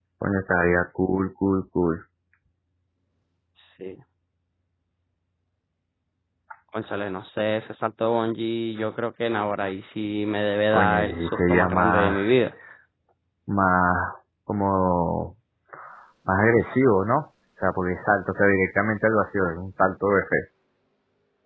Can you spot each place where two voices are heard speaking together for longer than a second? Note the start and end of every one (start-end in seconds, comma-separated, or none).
10.7-12.2